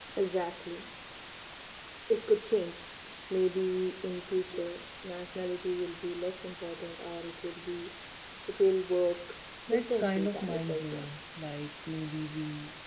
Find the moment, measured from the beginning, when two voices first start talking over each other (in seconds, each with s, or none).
9.7 s